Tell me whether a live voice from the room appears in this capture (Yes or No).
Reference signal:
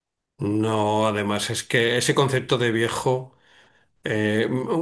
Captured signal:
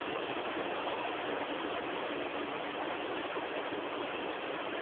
No